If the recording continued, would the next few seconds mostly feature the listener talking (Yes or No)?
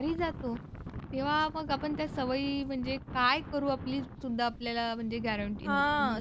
Yes